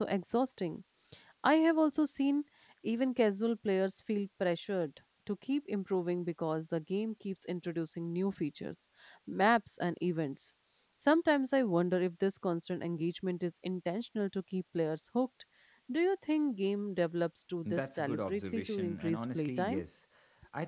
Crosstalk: present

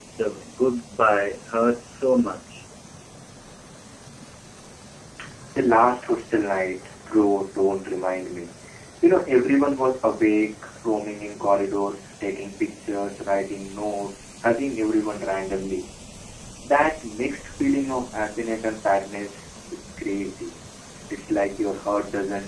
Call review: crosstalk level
none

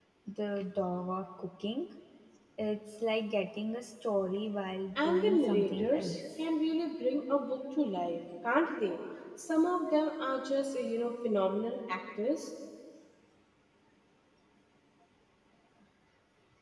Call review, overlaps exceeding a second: present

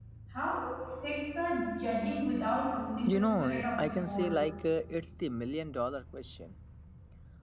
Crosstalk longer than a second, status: present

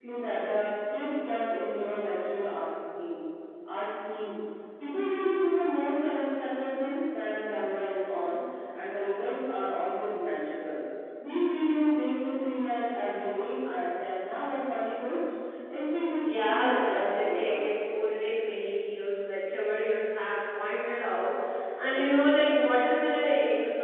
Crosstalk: present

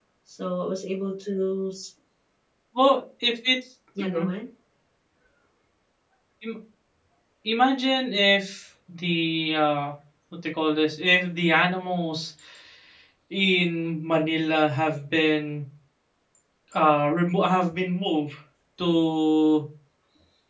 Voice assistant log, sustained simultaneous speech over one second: none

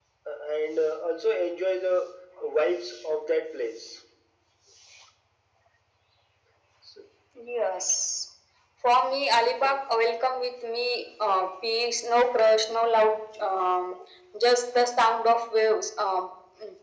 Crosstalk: none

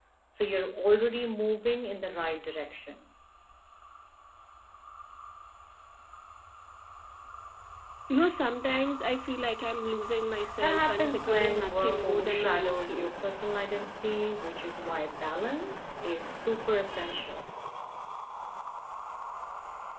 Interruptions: present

